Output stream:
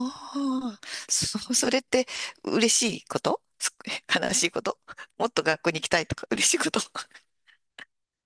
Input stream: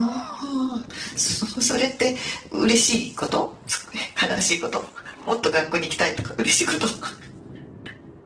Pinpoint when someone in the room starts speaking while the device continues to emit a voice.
none

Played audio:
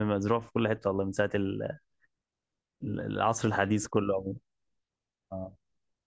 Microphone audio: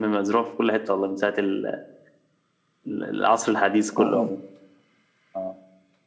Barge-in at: 4 s

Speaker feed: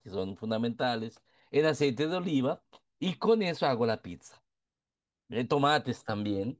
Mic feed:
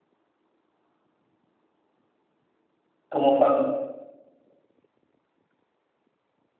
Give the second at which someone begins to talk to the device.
3 s

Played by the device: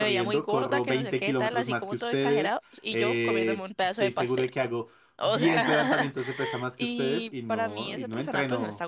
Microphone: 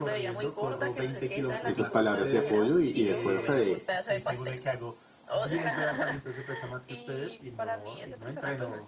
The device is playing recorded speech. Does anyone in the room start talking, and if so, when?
2 s

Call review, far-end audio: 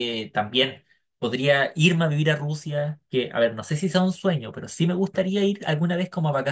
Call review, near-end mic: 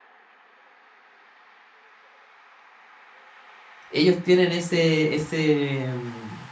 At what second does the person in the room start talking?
4 s

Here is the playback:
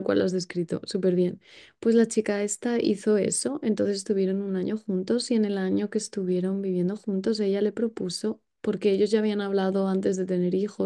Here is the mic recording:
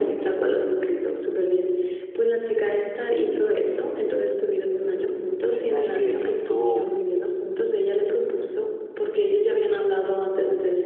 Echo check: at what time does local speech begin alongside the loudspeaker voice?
5 s

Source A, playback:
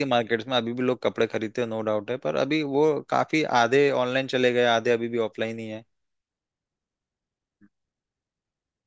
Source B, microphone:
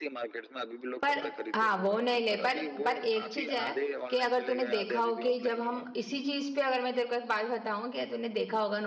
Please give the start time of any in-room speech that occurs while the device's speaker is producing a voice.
1 s

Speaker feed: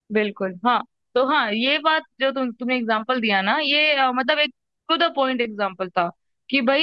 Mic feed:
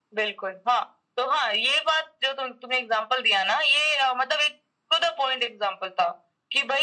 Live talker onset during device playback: none

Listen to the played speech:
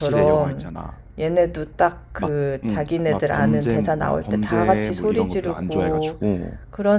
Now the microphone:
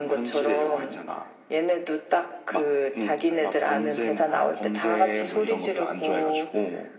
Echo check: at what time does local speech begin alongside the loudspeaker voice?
none

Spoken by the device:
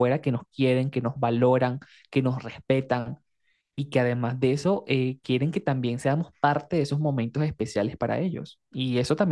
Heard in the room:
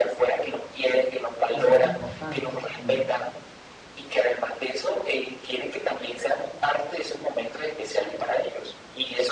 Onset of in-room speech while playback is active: 1 s

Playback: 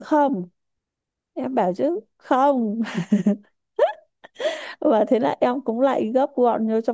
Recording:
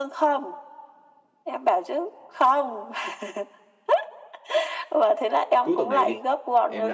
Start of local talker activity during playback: 6 s

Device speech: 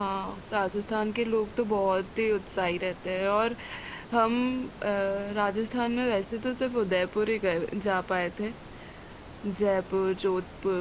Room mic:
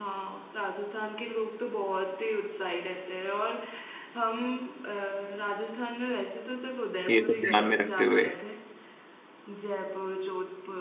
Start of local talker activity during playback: 7 s

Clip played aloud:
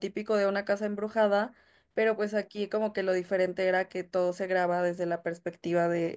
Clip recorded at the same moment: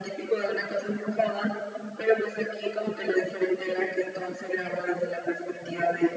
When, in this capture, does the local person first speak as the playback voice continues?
none

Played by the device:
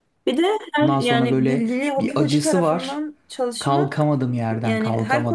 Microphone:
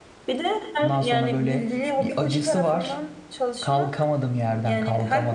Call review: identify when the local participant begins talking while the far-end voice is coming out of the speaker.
none

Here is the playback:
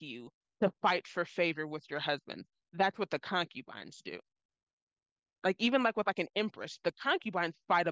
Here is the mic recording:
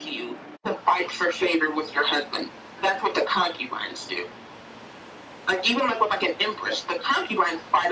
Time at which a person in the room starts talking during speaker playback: none

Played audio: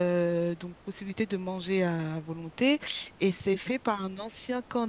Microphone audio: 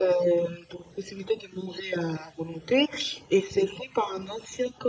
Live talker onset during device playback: none

